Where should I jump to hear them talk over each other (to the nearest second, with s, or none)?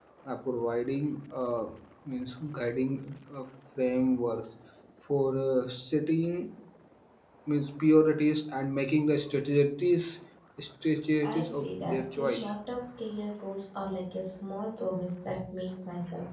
11 s